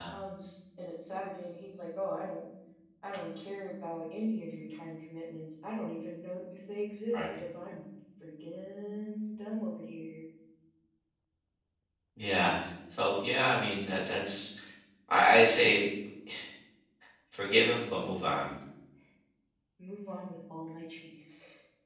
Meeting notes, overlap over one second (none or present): none